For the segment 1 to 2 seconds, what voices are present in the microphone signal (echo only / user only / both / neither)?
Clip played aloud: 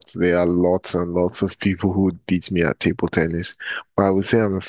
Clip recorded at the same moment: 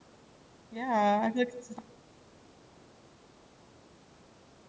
user only